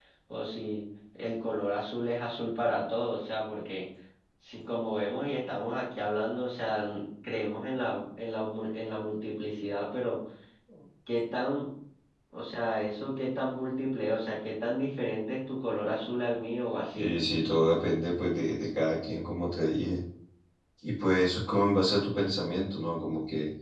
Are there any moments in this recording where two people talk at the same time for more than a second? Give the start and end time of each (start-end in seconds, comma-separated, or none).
none